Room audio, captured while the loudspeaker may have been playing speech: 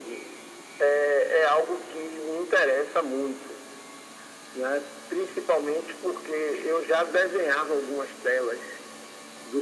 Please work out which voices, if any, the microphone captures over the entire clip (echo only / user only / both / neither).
echo only